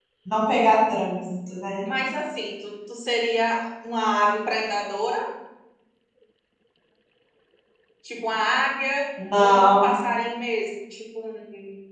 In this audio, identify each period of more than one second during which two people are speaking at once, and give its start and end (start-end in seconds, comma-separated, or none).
none